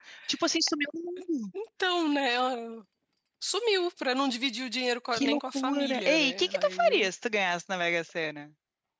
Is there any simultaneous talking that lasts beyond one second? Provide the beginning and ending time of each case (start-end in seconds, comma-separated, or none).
5.1-7.1